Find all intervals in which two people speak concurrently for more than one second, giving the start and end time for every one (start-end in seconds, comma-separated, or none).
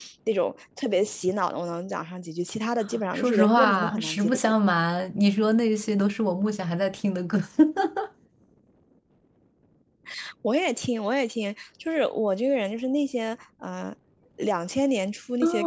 3.1-4.4